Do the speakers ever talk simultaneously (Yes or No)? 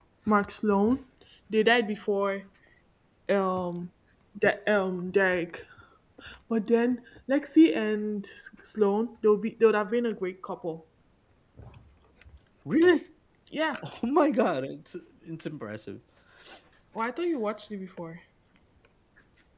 No